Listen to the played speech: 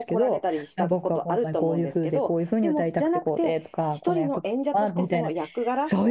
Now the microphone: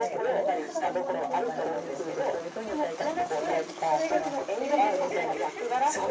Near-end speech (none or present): present